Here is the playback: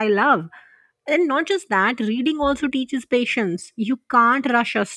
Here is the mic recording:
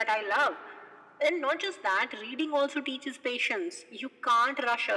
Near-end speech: none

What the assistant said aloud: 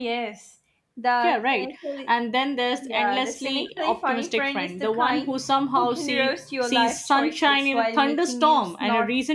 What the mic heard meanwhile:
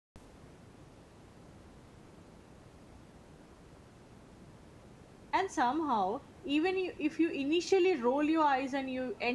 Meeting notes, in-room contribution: present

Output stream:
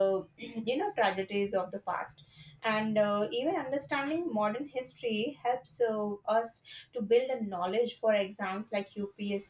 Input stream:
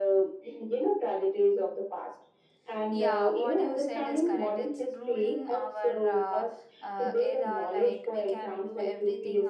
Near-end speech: present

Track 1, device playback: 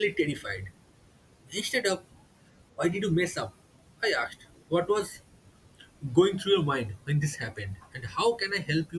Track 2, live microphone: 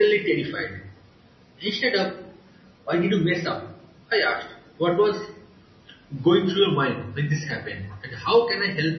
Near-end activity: none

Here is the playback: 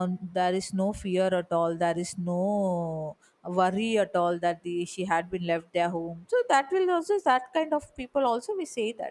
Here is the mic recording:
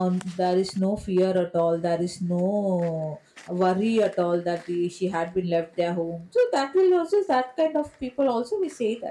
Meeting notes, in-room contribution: none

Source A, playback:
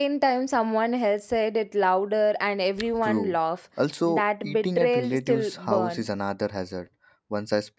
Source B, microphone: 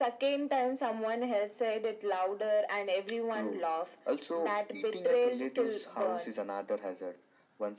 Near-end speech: none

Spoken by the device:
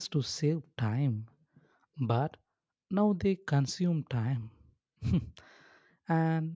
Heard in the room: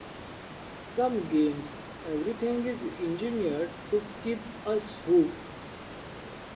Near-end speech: present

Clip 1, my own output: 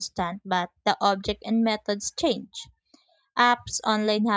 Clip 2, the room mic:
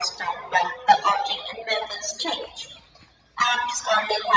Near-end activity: none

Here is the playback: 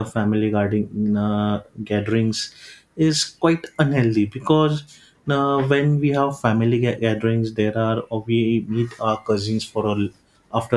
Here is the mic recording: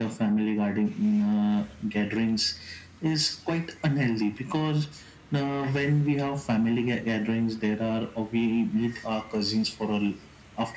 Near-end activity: none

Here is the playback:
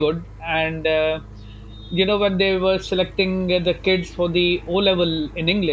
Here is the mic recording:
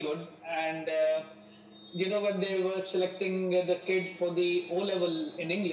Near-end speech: none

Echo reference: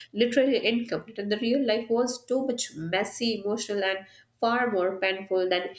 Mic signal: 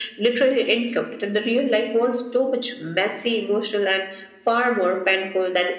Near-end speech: none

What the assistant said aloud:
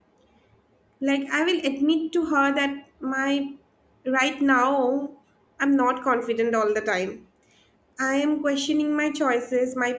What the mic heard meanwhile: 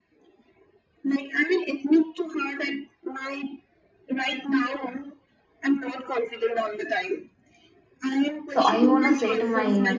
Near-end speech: present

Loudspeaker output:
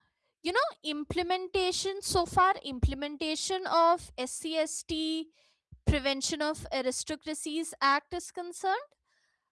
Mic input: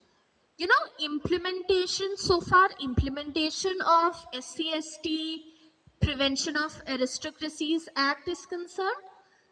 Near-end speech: none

